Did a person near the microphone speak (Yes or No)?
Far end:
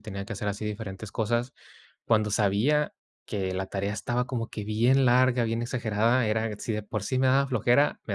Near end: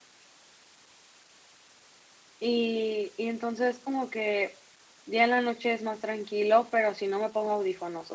Yes